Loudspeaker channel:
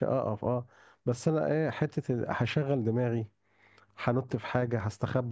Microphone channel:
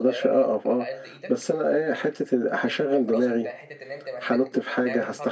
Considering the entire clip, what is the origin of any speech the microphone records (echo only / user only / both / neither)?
both